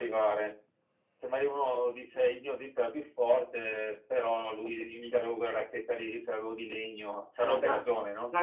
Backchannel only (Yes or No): No